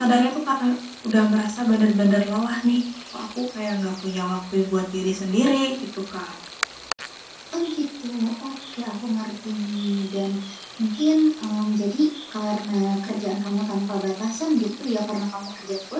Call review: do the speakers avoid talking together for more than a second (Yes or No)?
Yes